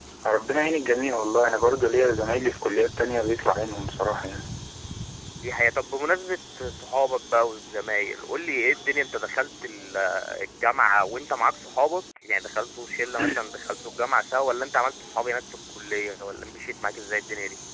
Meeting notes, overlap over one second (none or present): none